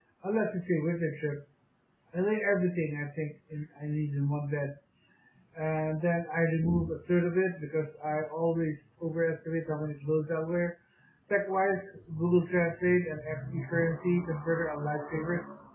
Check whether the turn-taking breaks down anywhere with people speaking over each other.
No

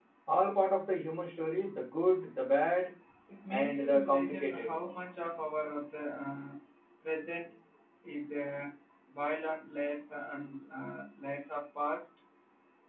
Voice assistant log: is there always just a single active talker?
No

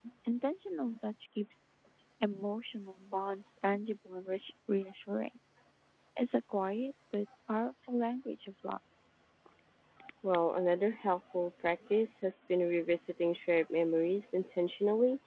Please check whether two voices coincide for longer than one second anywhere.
No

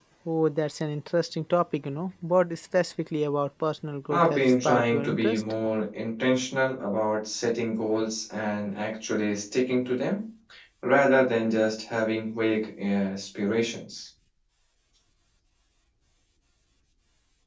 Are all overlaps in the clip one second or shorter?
No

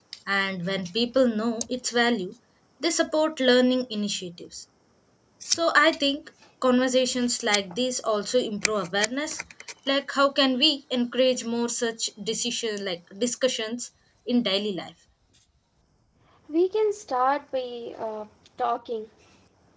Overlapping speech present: No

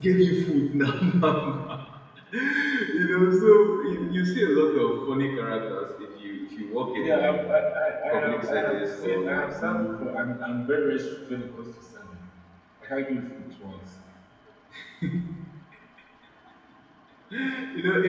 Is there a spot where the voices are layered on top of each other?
Yes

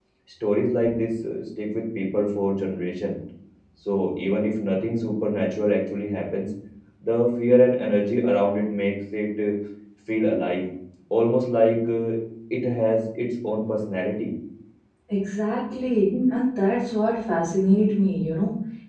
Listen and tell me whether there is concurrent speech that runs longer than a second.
No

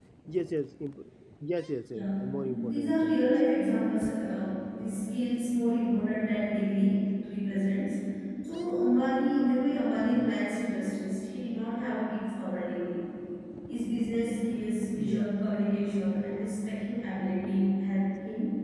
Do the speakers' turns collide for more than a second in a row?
Yes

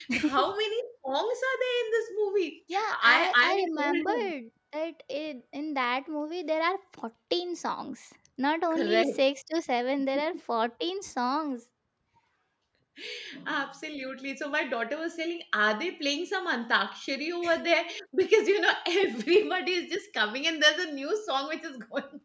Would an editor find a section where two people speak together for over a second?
Yes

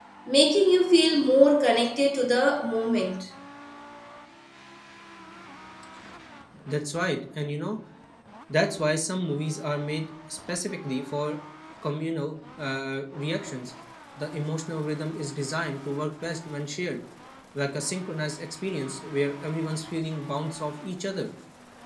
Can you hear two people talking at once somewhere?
No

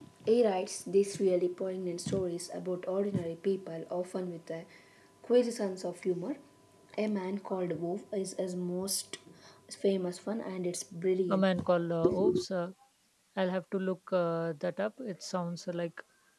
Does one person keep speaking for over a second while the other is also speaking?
No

